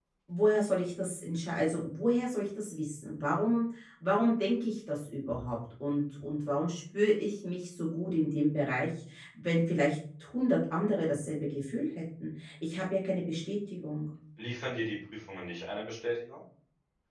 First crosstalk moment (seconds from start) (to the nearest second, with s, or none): none